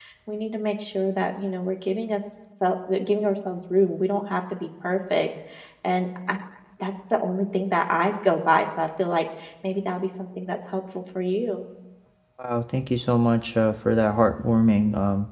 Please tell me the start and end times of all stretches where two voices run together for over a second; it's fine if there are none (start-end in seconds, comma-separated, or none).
none